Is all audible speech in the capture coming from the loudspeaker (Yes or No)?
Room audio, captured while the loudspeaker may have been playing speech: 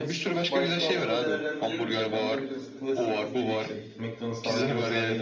No